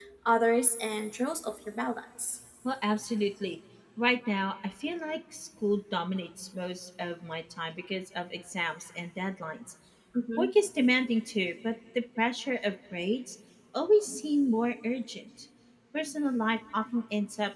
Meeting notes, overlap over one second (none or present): none